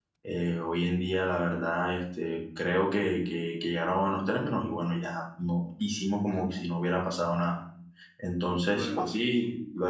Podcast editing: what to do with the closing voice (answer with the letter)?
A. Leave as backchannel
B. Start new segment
A